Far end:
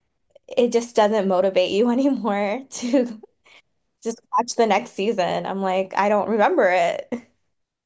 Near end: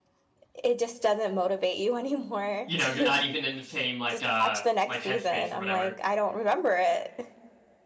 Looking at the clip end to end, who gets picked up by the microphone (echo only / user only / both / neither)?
both